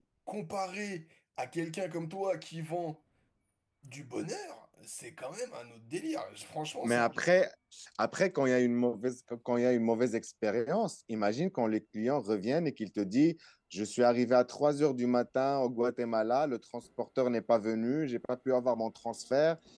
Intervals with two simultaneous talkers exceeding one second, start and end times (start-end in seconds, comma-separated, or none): none